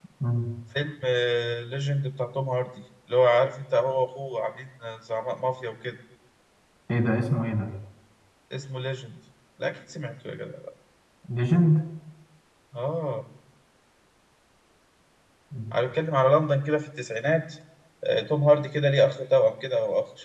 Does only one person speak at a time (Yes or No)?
Yes